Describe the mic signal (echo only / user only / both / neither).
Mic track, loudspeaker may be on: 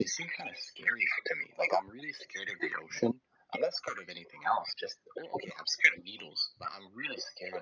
echo only